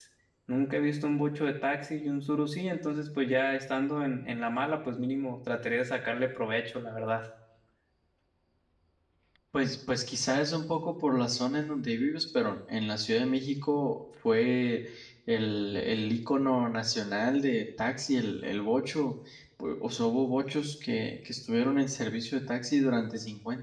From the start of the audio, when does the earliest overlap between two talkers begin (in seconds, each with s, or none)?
none